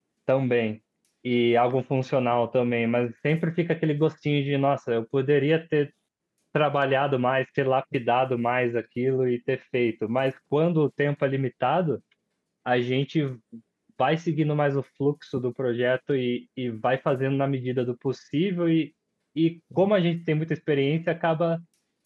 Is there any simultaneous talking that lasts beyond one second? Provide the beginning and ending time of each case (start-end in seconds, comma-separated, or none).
none